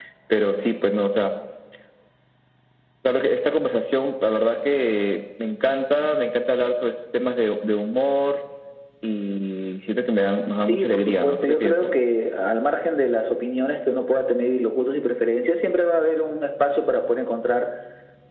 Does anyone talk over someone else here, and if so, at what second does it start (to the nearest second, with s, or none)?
11 s